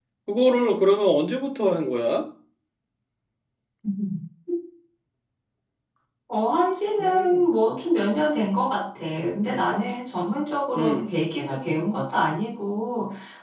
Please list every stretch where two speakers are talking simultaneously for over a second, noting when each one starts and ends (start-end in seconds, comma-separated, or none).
none